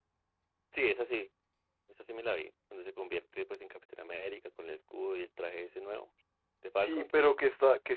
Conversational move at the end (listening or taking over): taking over